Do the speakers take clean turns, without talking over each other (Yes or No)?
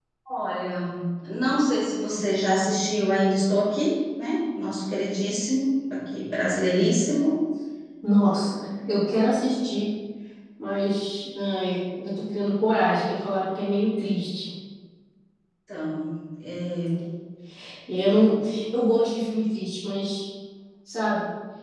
Yes